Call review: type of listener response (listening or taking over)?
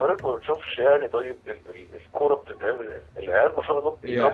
listening